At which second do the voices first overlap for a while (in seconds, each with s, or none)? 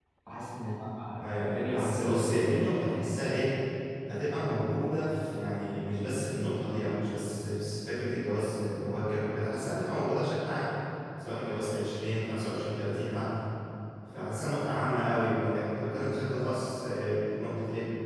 1.2 s